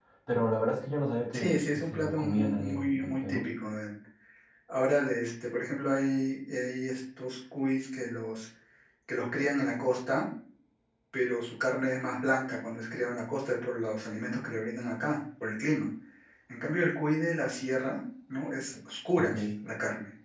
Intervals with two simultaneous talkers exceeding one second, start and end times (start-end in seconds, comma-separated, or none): 1.3-3.5